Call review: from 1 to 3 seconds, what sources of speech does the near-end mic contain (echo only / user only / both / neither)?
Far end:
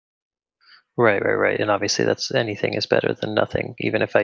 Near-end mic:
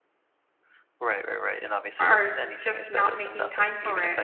both